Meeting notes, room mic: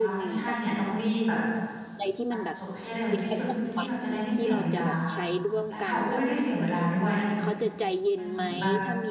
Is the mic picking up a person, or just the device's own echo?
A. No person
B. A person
B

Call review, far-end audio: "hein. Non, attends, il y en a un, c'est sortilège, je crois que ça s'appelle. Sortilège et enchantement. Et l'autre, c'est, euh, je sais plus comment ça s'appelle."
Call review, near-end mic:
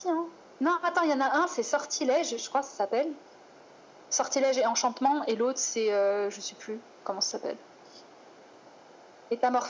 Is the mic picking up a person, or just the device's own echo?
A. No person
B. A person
A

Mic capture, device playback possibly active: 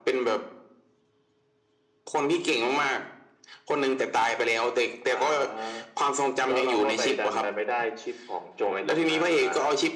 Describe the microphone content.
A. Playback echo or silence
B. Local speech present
A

